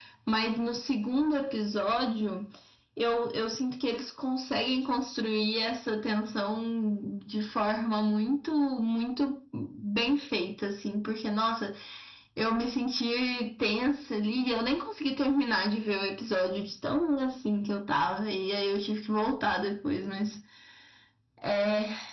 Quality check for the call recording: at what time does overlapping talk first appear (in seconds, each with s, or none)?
none